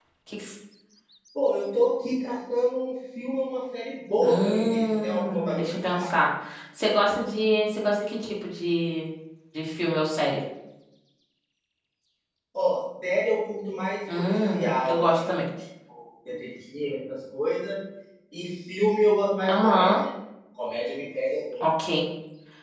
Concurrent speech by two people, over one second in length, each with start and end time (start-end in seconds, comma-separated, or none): 4.2-6.1, 14.2-15.4